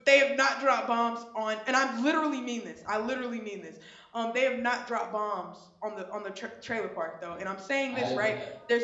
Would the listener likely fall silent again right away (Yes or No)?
Yes